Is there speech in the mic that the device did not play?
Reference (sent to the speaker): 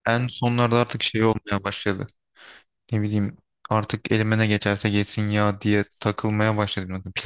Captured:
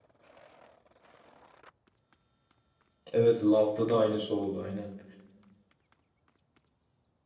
Yes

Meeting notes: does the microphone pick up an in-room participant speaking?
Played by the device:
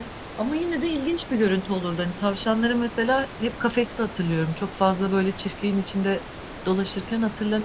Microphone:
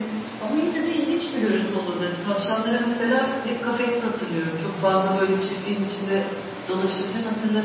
No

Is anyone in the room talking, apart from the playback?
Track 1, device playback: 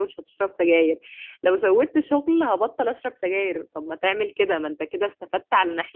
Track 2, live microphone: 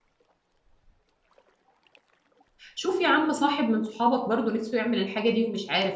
Yes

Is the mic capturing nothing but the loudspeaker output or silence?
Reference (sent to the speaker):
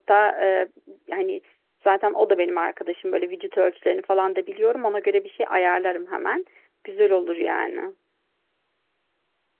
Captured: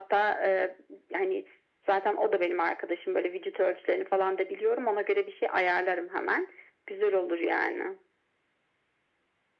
Yes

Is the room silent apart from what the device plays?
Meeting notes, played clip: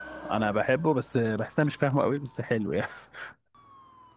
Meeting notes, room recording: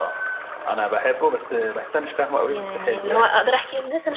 No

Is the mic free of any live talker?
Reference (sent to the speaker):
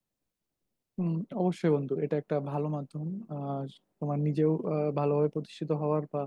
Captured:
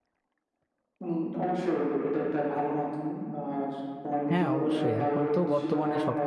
No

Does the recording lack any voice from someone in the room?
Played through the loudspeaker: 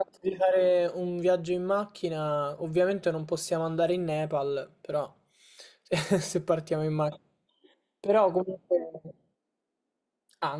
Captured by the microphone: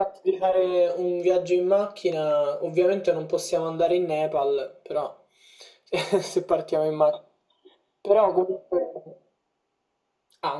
Yes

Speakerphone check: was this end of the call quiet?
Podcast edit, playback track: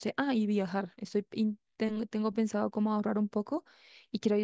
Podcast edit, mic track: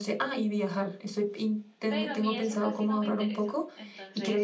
No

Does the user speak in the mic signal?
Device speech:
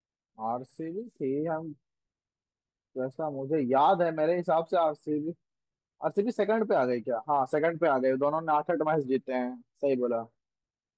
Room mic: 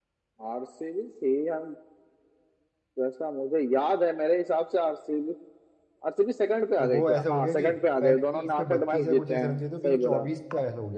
Yes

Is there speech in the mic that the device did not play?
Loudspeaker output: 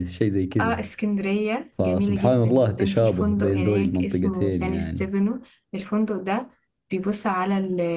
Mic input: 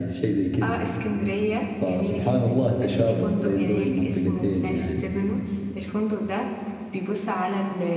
No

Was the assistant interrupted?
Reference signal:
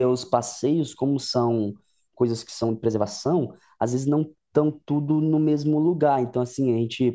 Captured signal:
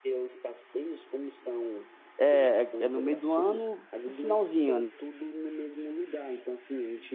Yes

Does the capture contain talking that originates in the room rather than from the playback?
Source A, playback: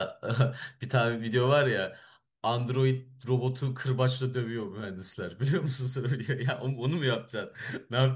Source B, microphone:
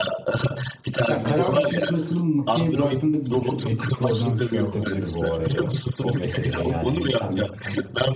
Yes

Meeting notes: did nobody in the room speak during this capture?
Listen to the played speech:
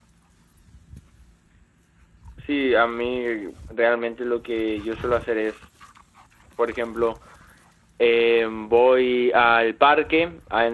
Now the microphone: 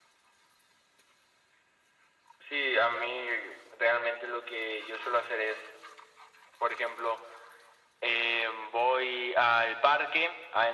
Yes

